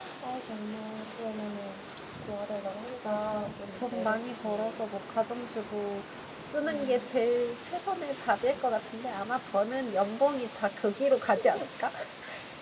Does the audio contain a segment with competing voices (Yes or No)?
Yes